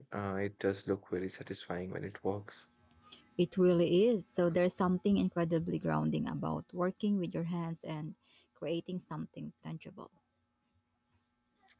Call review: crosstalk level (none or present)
none